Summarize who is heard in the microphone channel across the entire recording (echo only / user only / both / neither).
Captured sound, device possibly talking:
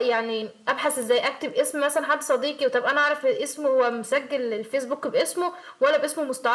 echo only